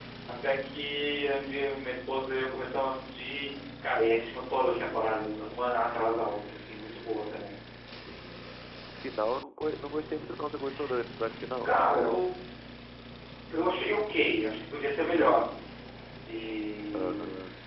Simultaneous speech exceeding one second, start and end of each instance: none

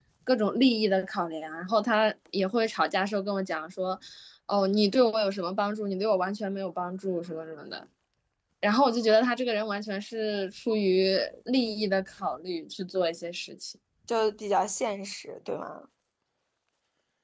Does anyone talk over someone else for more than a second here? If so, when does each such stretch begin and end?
none

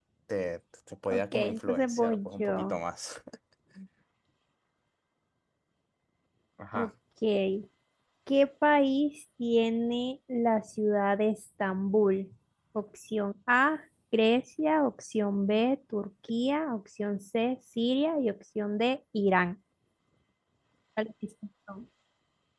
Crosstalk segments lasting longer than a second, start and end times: 1.1-2.8

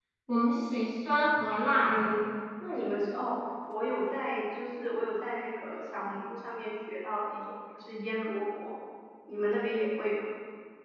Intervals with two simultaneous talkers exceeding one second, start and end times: none

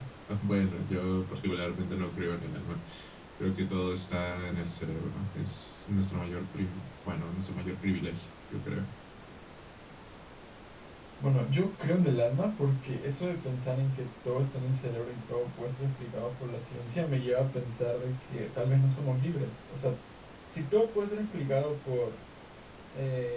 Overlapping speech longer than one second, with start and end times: none

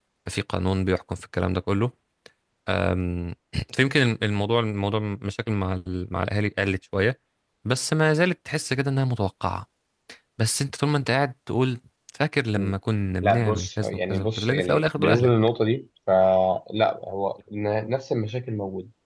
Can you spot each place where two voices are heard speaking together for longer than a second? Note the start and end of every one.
13.2-15.3

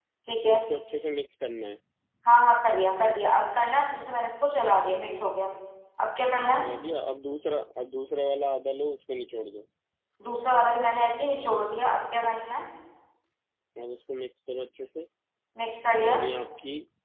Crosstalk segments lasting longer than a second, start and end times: none

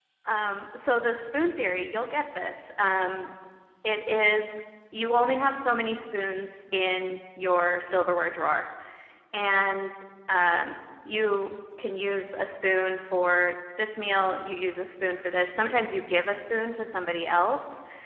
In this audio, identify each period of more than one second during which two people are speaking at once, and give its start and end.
none

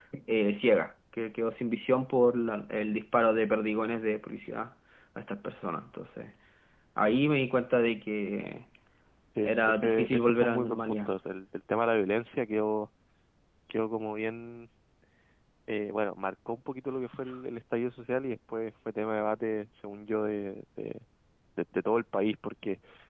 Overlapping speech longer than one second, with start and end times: 9.4-11.1

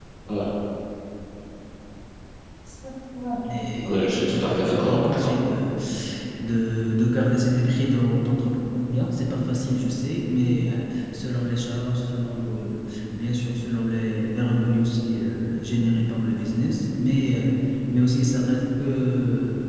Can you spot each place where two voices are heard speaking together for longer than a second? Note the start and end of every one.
3.8-5.3

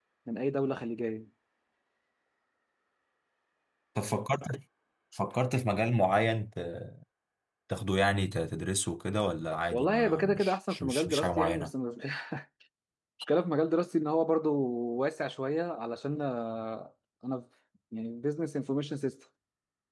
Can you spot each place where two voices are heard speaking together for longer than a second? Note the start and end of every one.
9.7-11.7

